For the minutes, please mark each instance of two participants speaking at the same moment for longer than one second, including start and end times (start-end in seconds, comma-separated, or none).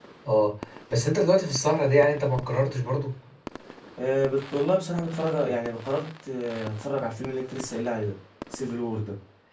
none